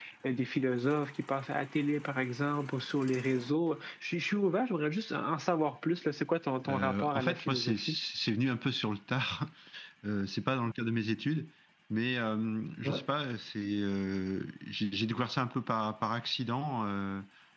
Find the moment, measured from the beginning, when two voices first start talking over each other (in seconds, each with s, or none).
6.7 s